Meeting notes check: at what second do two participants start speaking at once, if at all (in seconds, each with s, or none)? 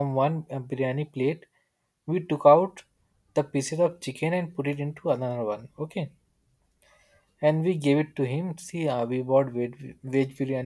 none